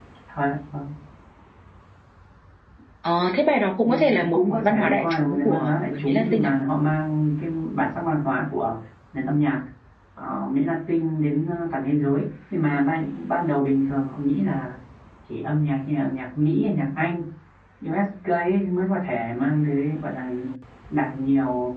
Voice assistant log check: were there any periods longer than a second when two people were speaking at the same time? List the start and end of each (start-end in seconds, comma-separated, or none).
3.8-6.6